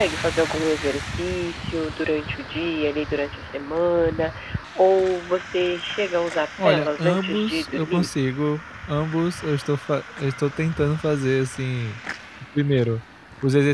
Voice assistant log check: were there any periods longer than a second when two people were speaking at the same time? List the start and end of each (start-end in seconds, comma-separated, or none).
6.6-8.1